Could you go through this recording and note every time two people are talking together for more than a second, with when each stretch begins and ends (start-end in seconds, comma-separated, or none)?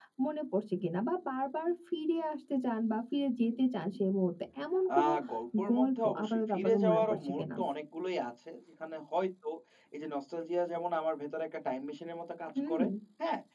5.7-7.4